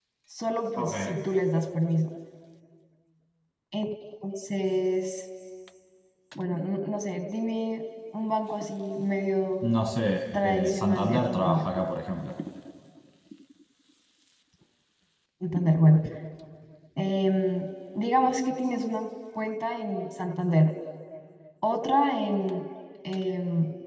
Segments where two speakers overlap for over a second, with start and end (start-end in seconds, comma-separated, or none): 10.3-11.6